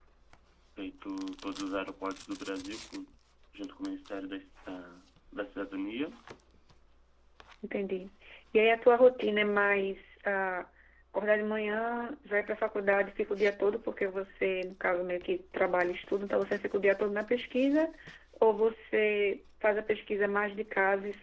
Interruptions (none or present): none